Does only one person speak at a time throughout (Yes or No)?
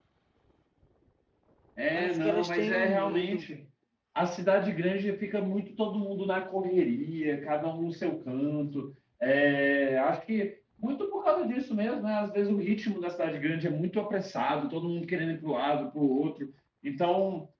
No